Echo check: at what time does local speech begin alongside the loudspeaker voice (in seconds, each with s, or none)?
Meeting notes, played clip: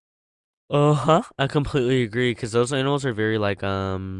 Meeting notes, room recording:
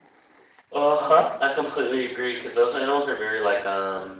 none